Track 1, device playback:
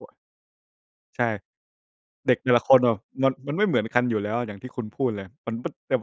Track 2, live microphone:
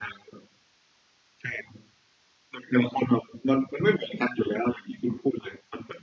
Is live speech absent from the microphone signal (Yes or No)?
Yes